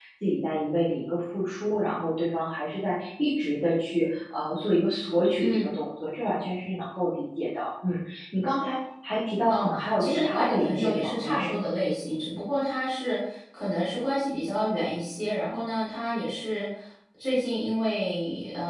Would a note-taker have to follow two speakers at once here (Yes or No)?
Yes